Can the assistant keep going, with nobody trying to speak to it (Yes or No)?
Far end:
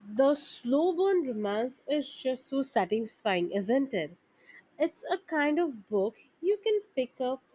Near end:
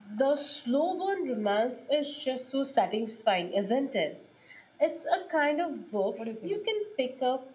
No